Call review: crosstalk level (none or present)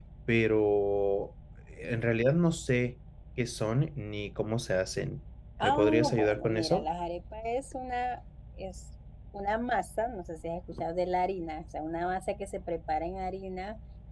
present